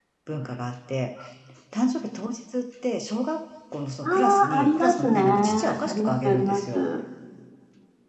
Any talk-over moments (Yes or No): Yes